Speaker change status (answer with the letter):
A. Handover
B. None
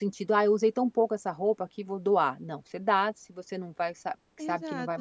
A